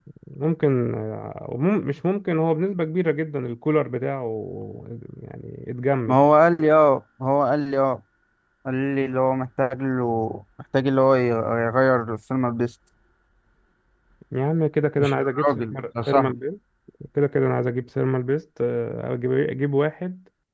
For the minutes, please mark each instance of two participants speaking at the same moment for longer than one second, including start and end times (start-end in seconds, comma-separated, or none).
15.0-16.3